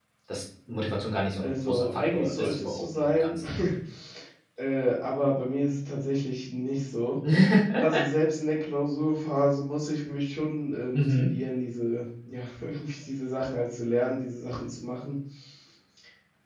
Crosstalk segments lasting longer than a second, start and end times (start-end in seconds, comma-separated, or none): 1.4-3.4